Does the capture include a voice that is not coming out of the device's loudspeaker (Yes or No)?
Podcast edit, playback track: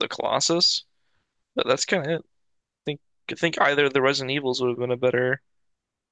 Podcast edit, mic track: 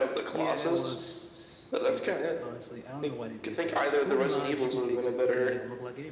Yes